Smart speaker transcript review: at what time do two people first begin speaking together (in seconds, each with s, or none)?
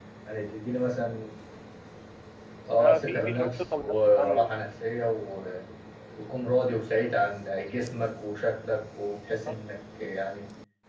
2.8 s